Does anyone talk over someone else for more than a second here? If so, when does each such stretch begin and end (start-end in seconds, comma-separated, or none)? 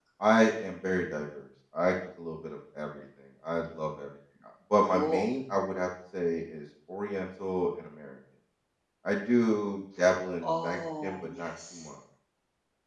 10.4-11.9